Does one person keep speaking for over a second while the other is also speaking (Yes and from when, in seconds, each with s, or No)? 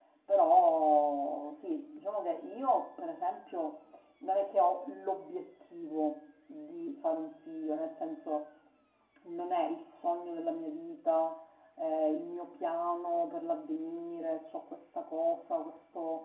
No